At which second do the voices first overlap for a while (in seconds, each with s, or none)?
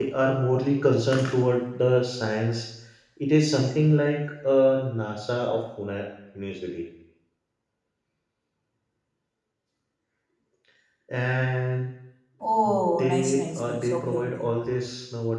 13.0 s